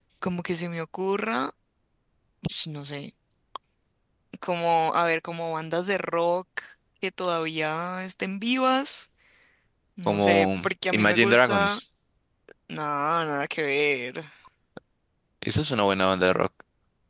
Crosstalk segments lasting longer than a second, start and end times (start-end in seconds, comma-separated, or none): 10.1-11.8